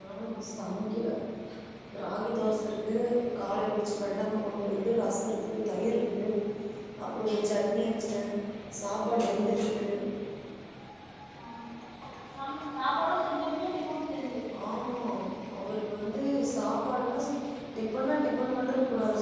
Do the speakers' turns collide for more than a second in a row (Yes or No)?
No